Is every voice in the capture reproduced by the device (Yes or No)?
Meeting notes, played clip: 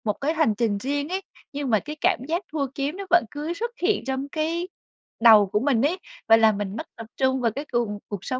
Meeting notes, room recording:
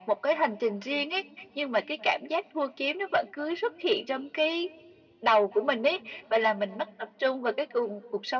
Yes